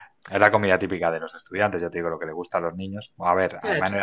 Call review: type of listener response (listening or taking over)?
listening